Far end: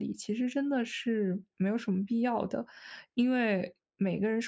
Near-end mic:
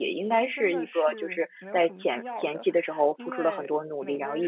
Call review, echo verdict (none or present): present